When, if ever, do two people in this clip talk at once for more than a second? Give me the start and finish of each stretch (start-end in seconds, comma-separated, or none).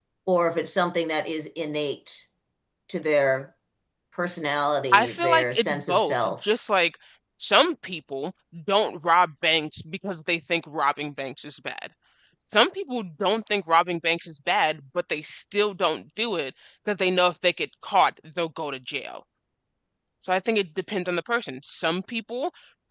4.9-6.4